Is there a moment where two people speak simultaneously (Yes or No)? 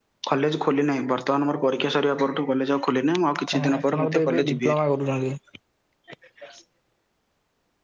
Yes